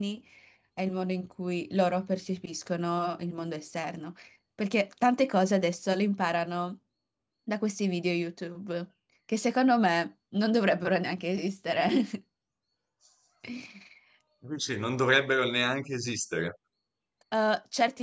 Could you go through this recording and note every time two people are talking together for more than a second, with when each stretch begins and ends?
none

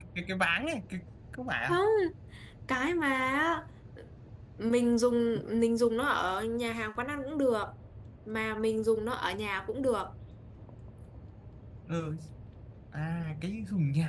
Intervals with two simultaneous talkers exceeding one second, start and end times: none

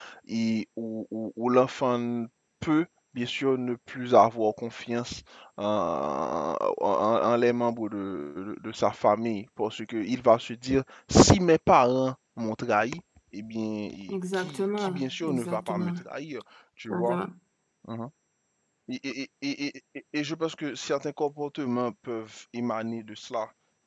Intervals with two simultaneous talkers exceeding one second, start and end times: 14.3-15.9

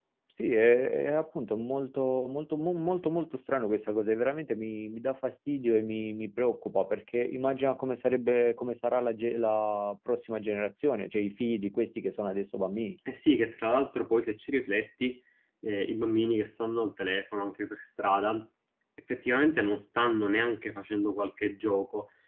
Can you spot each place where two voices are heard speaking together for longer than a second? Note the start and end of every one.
none

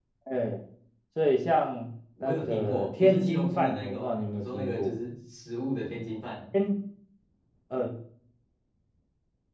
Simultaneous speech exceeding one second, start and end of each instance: 2.2-4.9

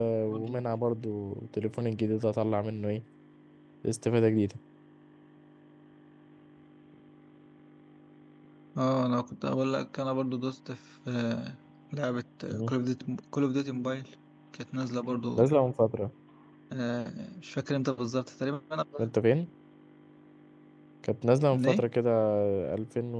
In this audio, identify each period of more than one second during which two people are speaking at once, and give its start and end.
none

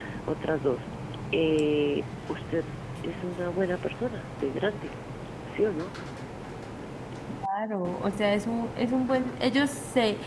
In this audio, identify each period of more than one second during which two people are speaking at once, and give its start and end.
none

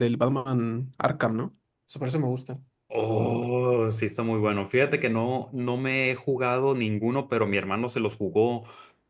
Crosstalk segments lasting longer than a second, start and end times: none

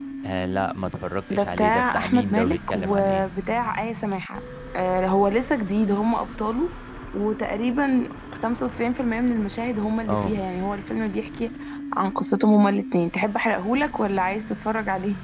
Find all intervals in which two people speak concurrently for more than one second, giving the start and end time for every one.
1.3-3.2

